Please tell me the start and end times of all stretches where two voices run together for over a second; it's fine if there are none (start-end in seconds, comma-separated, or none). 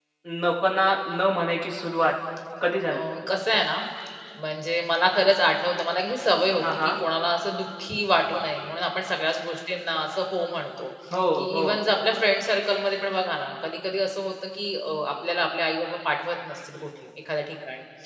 none